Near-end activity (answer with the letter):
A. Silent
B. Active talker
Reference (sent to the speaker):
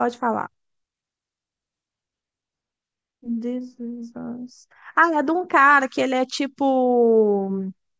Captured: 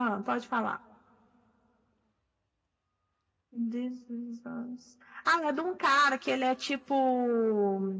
A